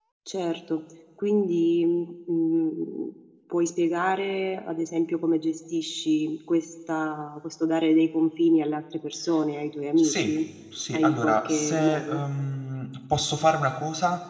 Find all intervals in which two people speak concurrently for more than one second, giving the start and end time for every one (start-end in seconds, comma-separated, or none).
10.9-12.2